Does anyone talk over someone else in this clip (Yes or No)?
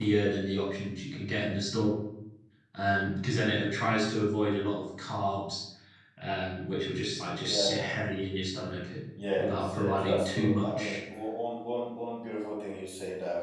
Yes